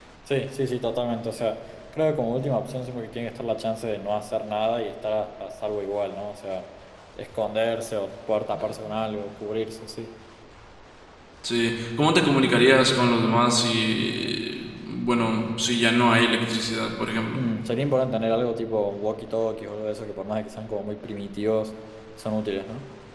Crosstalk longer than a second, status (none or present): none